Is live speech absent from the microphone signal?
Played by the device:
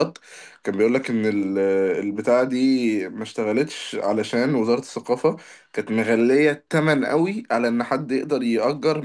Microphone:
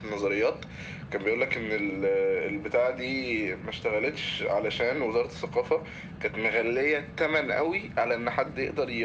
Yes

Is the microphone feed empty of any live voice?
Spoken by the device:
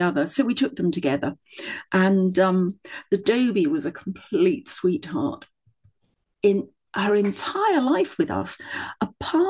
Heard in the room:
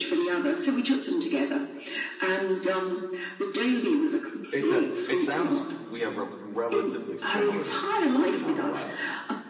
No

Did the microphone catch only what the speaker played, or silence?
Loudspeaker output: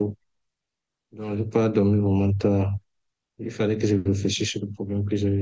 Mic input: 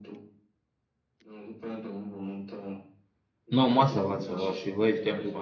No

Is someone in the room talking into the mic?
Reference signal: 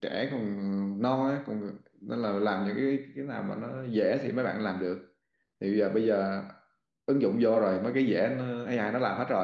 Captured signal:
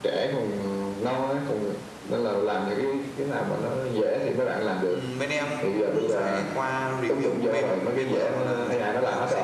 Yes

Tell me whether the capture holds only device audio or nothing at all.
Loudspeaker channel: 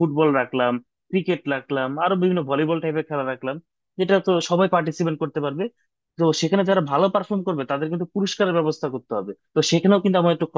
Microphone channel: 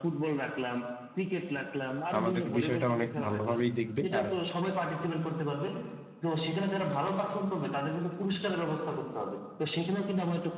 No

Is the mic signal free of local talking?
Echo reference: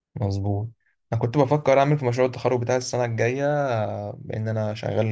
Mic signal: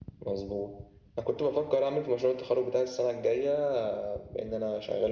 Yes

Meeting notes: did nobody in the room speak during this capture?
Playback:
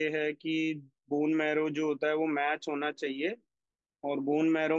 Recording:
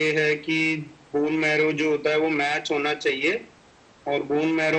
Yes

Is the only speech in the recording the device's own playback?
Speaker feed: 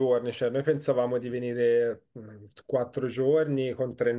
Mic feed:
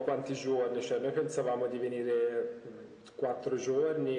Yes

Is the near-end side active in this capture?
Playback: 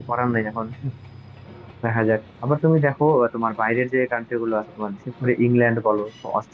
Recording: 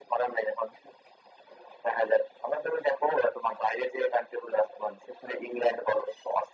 No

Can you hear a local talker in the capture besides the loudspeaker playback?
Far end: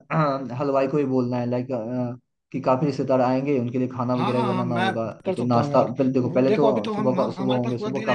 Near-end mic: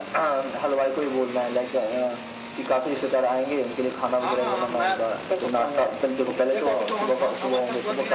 No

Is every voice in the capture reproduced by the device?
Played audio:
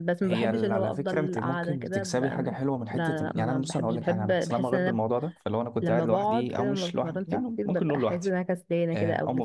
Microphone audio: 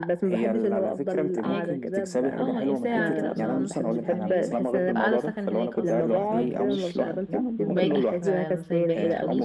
No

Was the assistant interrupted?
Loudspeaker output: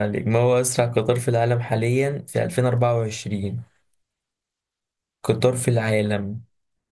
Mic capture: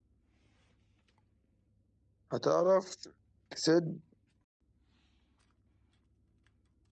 Yes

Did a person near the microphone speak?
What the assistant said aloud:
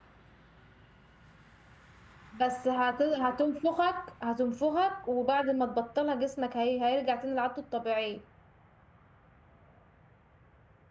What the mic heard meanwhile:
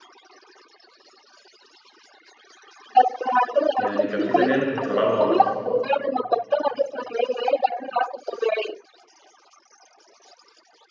Yes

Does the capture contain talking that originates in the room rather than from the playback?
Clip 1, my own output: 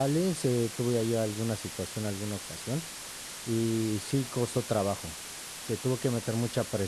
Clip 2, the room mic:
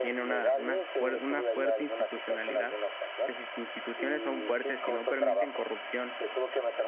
Yes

